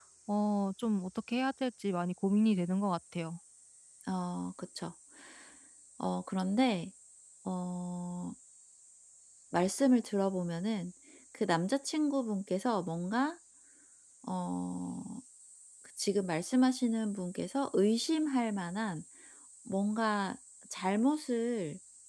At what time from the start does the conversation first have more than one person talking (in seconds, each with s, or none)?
none